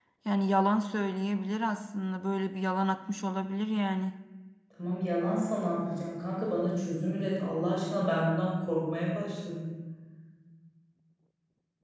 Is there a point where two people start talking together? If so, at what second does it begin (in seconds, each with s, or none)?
none